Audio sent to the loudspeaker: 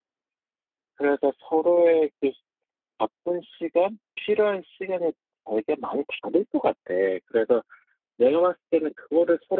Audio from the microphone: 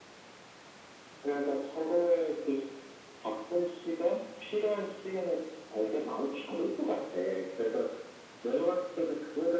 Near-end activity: none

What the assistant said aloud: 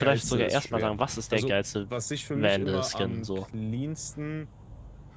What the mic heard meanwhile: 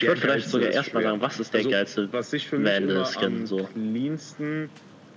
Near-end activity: none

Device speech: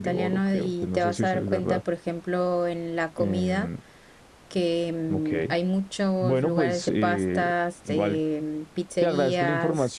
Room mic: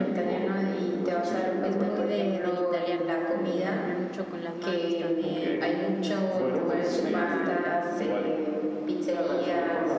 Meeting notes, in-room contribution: present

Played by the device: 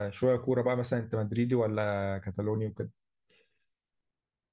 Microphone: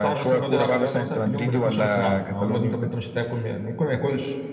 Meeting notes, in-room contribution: present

